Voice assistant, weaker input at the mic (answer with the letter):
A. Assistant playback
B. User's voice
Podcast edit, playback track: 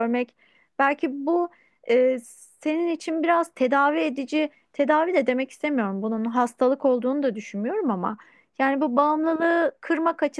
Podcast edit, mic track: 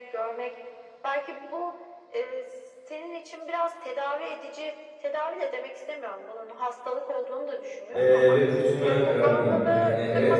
A